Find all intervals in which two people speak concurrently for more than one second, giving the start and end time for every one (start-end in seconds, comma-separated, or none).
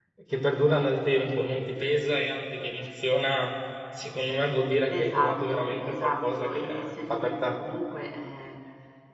4.9-7.6